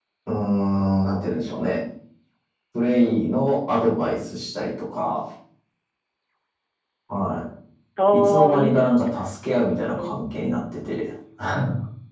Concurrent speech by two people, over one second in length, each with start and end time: 8.1-9.3

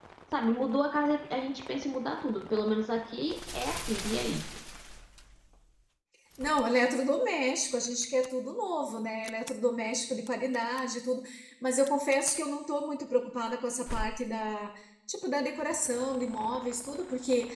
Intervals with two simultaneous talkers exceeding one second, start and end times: none

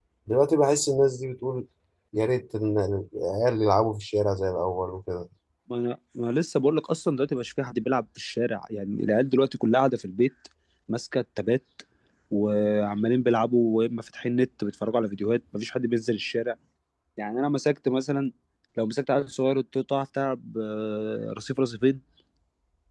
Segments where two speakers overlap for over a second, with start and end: none

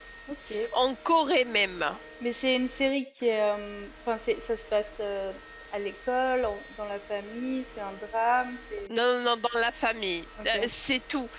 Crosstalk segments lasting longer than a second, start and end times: none

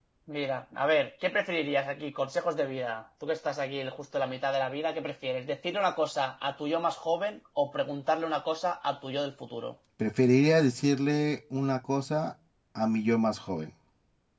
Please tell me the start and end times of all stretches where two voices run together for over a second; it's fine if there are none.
none

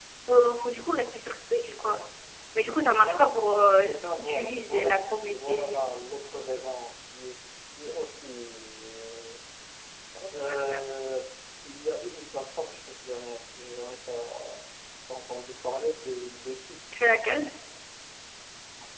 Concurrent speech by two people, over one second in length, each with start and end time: 3.8-5.8

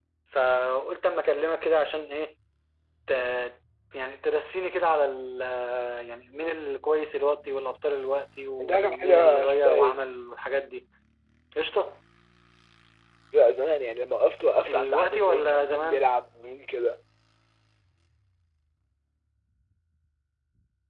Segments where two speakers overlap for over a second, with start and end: 8.6-10.0, 14.7-16.1

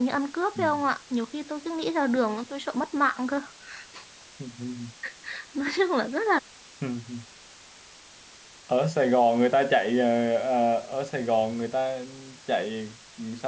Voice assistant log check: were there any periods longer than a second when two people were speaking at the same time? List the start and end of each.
none

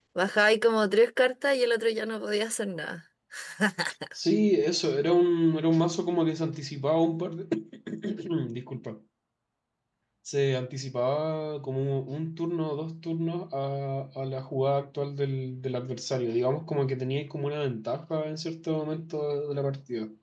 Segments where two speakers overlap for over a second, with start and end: none

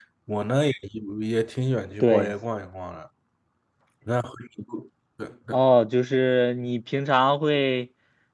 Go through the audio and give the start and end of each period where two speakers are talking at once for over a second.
none

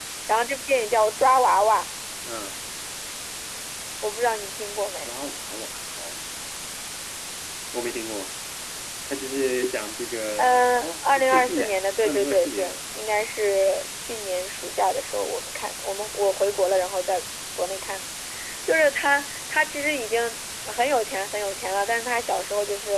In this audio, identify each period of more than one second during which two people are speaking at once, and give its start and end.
10.4-12.8

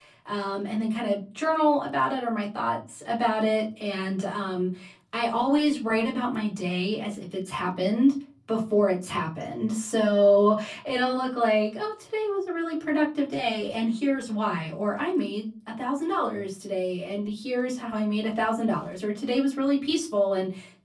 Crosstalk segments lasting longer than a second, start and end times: none

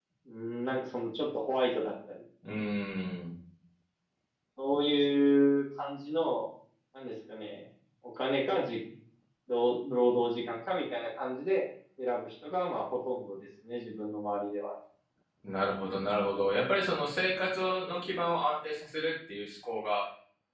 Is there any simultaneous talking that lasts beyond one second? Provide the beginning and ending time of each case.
none

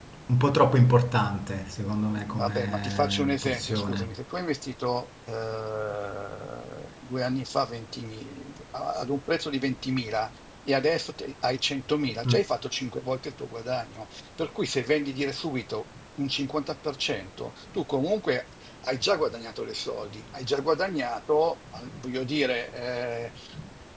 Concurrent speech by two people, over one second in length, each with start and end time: 2.3-4.1

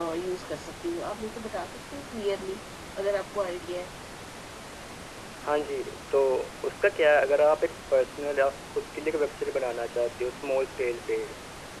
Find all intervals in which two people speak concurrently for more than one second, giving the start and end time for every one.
none

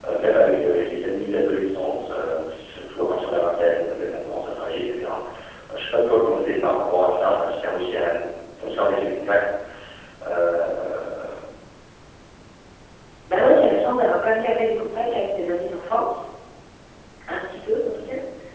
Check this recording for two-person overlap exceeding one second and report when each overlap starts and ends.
none

